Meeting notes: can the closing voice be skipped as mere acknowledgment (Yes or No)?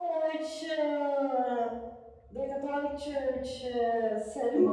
No